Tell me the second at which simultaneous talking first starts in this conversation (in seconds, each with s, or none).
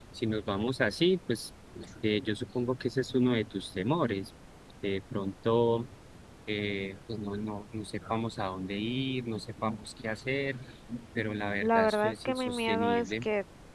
11.6 s